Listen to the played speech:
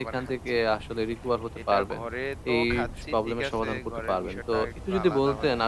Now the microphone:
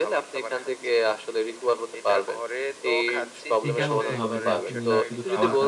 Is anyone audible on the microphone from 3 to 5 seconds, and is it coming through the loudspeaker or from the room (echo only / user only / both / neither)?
both